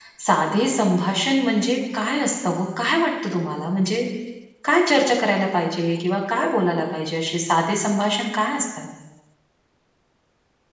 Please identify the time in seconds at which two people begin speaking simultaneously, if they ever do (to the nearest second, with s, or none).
none